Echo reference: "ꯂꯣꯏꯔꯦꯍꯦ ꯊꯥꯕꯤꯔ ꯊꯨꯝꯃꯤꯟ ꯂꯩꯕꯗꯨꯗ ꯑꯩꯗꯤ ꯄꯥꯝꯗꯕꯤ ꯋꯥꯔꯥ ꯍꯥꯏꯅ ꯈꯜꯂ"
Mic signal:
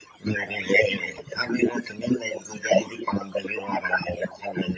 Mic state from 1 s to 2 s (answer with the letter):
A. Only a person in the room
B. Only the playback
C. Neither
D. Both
B